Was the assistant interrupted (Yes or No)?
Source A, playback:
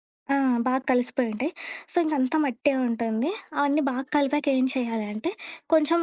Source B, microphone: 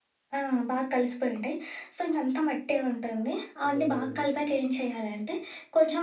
Yes